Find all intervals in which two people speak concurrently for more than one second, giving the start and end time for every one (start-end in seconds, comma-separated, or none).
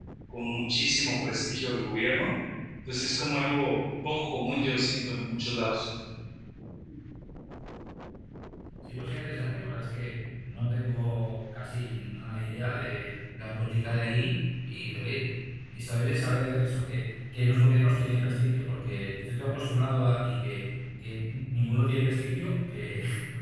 none